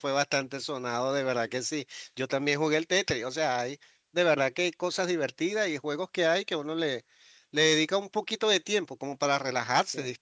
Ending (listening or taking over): listening